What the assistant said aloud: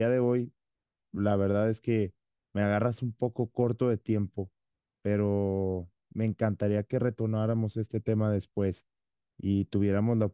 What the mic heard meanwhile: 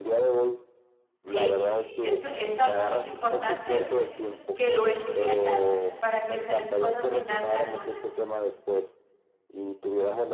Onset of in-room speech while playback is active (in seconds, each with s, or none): 1.2 s